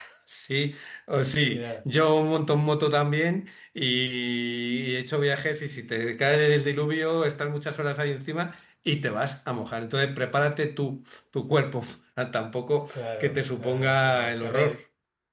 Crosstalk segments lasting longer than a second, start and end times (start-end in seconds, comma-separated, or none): 12.9-14.8